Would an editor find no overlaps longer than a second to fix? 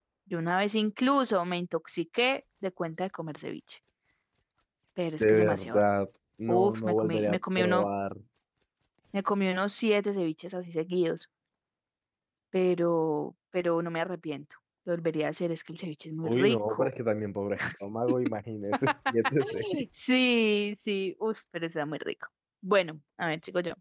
No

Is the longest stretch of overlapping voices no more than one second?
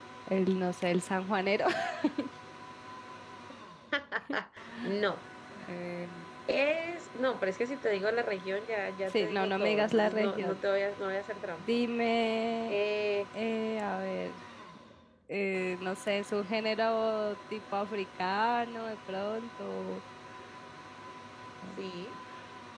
No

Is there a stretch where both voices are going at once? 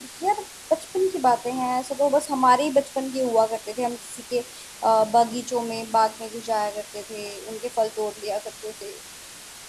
No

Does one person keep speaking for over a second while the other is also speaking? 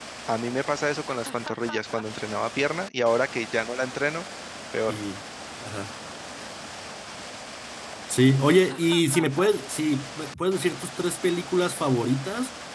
No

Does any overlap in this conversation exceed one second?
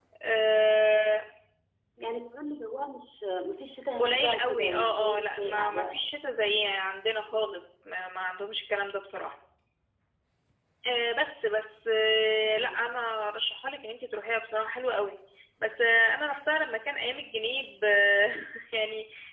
Yes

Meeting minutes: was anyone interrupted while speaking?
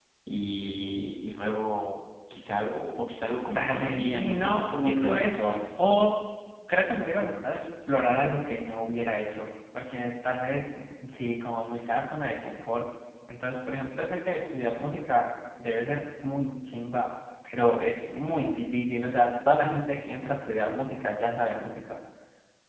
Yes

